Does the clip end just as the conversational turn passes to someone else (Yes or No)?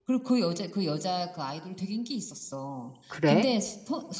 No